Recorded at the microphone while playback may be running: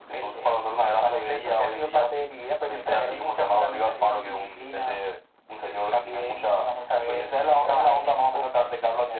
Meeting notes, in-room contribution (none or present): none